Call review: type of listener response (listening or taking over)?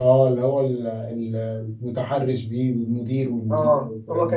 taking over